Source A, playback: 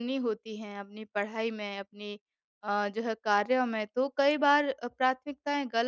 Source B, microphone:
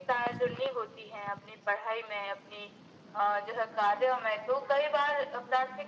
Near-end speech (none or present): none